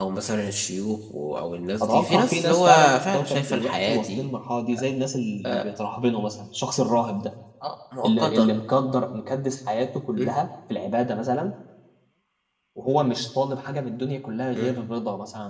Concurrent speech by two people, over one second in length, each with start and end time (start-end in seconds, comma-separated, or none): 1.8-4.3